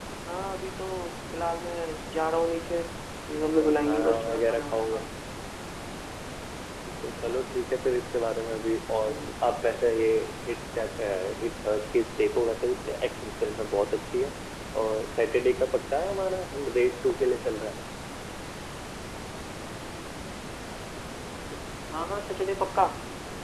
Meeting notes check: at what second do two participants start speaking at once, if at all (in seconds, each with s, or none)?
3.6 s